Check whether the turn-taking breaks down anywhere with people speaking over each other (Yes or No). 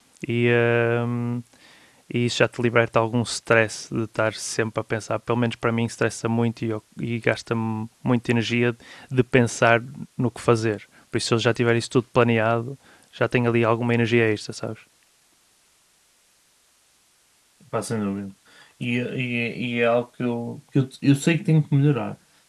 No